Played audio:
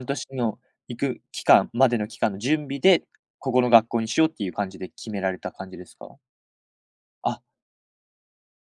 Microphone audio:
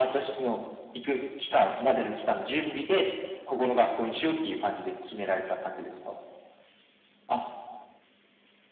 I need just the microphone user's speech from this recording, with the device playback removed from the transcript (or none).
none